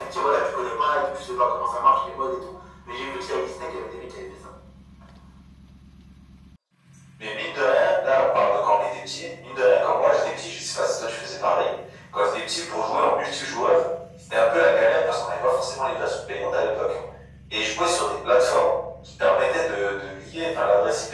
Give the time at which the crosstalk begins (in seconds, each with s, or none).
none